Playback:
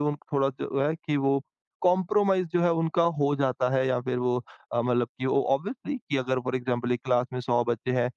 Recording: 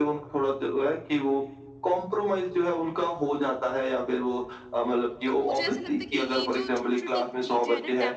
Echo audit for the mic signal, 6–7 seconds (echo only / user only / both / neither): both